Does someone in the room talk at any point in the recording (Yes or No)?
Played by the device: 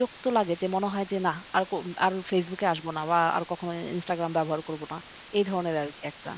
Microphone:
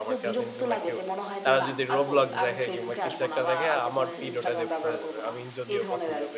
Yes